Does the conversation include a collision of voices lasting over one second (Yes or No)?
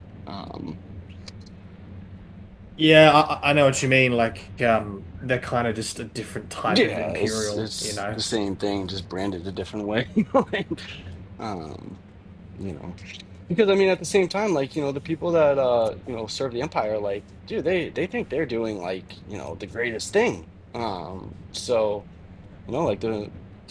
Yes